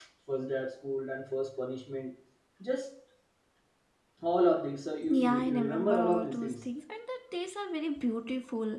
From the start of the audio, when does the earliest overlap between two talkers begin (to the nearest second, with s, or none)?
5 s